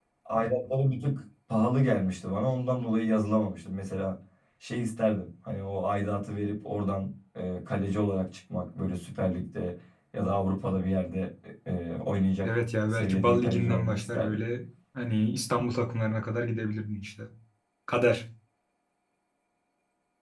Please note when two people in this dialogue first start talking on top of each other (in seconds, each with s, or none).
12.9 s